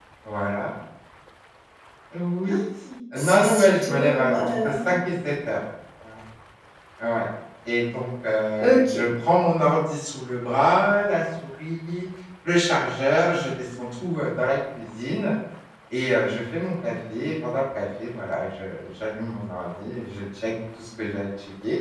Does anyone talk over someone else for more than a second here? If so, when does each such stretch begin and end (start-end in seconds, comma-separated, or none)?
3.2-4.9